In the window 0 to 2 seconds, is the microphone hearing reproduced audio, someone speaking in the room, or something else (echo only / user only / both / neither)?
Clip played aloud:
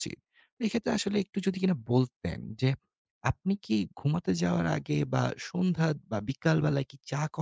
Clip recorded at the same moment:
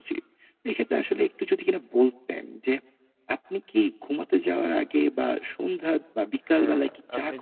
echo only